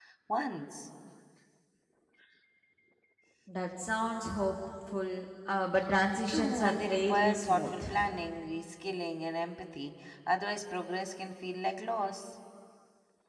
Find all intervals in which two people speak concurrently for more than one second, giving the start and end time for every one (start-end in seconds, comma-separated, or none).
6.3-7.8